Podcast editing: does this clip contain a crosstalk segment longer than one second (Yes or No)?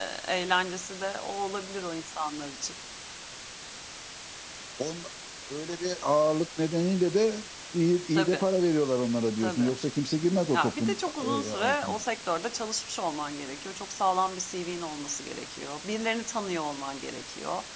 Yes